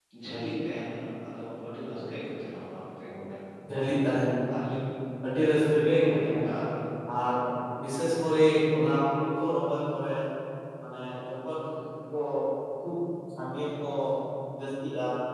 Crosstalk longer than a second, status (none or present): none